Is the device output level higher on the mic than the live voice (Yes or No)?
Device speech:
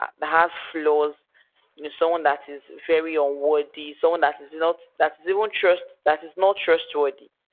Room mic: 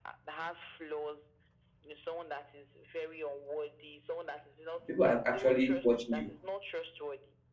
No